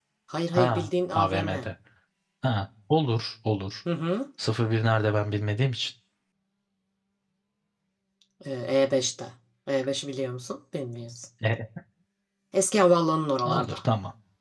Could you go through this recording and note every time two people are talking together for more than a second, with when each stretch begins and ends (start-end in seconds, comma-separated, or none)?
0.5-1.7